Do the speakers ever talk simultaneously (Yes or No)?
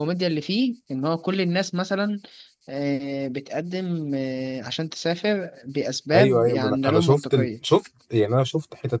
Yes